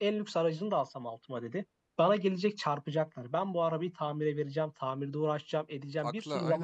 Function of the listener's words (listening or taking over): listening